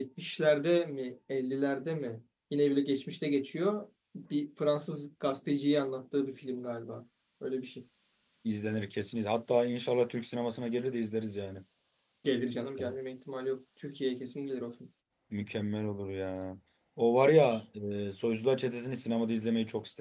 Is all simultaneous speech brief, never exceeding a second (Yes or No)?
Yes